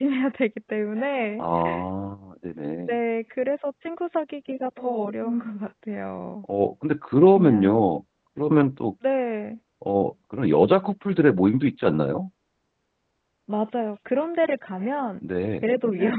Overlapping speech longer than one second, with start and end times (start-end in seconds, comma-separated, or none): none